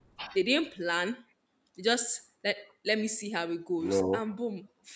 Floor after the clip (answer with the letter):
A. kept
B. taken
A